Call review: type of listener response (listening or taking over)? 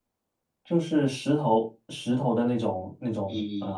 taking over